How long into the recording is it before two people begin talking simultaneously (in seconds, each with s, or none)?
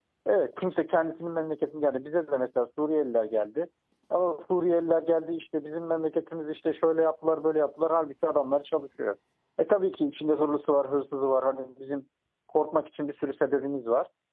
none